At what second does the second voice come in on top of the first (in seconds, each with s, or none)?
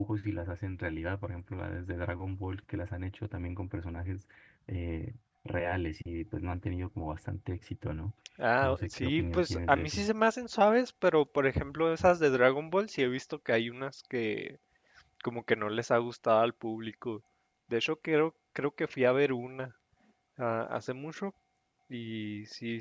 8.6 s